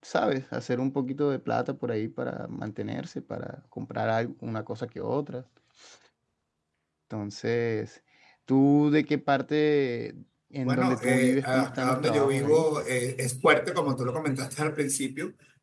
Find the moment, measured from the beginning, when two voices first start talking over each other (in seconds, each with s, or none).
10.7 s